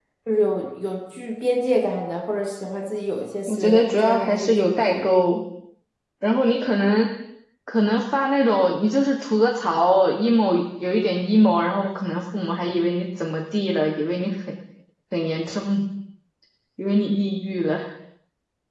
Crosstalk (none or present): present